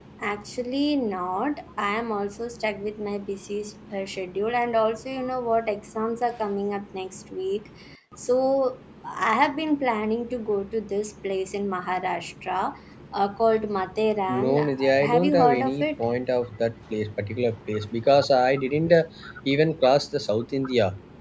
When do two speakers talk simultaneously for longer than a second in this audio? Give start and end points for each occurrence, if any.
14.3-15.8

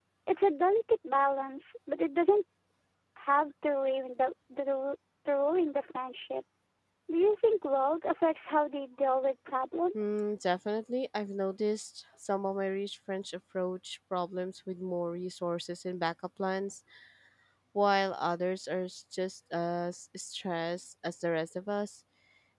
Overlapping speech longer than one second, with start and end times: none

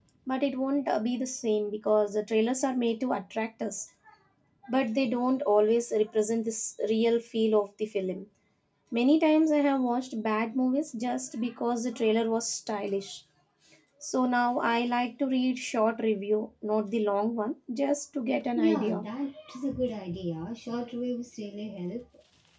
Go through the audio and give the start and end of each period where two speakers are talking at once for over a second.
none

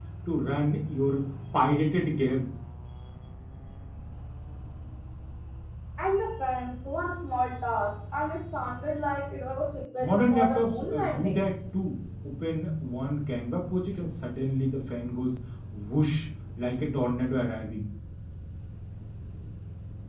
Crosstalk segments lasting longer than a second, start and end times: 10.0-11.4

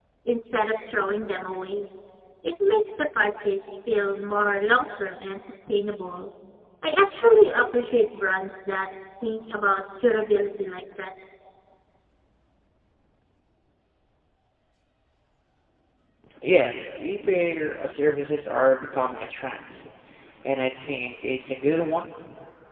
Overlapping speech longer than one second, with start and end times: none

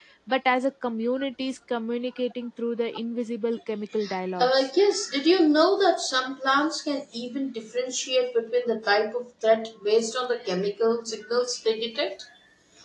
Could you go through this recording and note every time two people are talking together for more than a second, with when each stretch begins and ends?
none

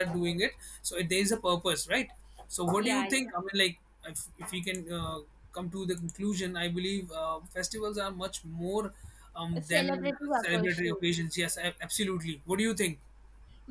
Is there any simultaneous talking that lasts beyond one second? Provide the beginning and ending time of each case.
9.6-10.9

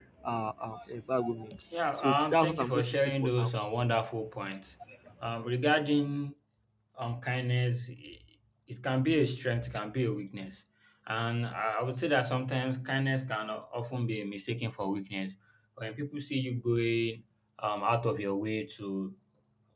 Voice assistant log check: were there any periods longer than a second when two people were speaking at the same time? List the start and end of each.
1.9-3.5

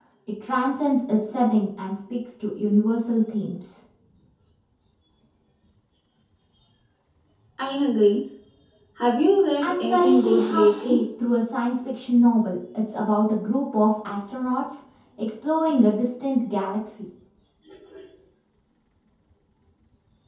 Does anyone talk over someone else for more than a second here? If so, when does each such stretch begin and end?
9.6-11.0

